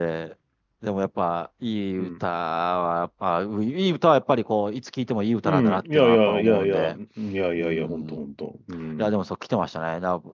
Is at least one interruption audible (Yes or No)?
Yes